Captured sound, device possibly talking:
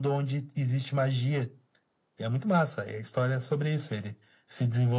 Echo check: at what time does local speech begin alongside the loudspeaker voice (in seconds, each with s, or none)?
none